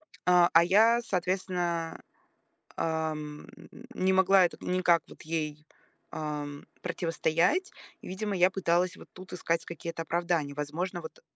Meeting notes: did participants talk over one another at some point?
No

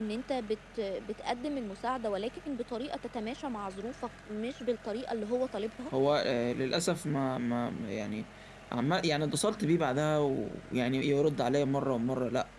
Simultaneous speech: No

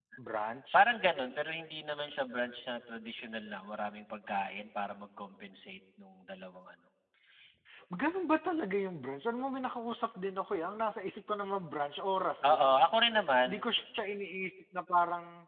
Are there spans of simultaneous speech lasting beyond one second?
No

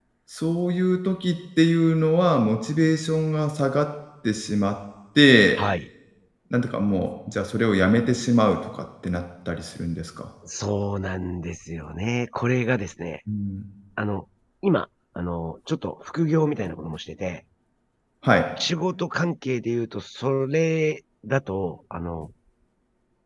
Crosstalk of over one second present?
No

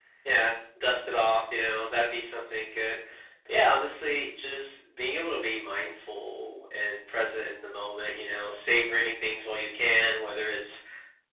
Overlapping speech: No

